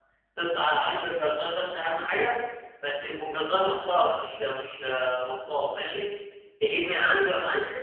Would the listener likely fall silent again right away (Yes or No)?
Yes